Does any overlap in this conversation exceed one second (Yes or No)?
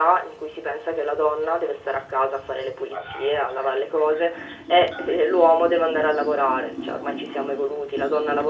Yes